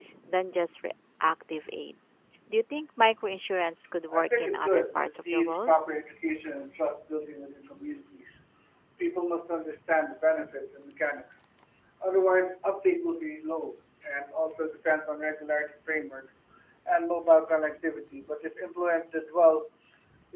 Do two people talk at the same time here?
Yes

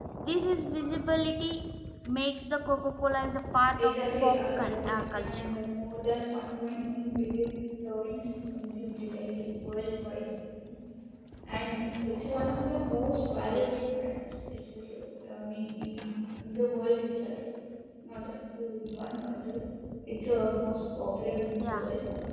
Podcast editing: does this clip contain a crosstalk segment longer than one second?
Yes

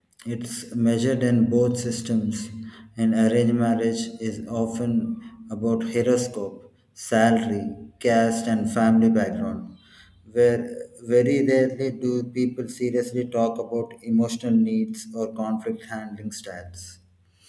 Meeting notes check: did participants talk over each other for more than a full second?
No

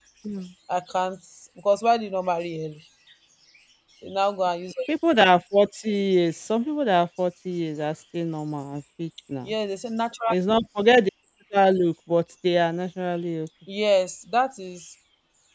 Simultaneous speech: No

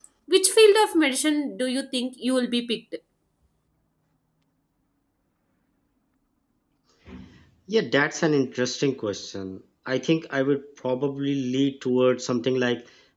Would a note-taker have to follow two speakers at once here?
No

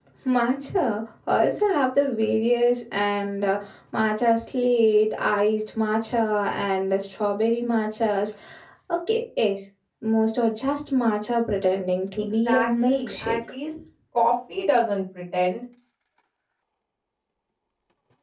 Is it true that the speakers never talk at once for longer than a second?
No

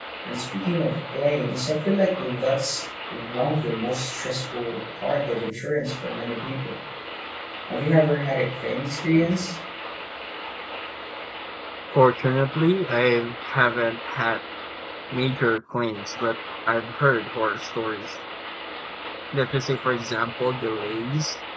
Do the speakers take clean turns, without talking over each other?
Yes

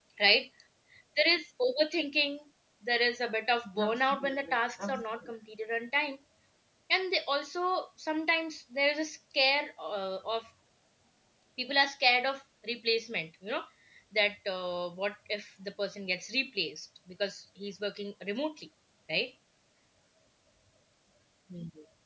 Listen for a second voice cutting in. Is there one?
Yes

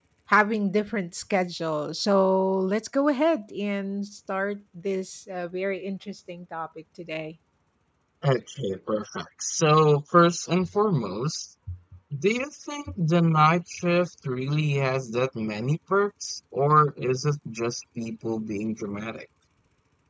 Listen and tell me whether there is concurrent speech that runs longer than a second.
No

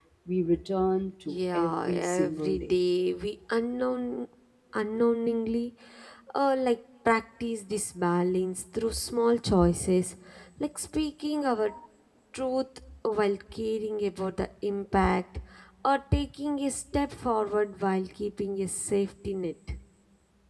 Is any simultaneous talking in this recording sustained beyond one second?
Yes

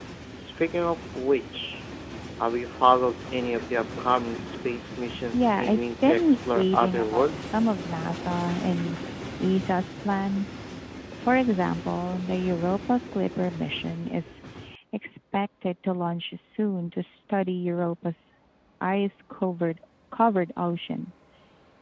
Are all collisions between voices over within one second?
No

